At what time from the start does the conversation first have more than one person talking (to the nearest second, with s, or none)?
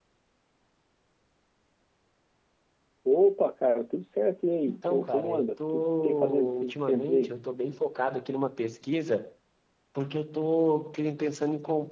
5 s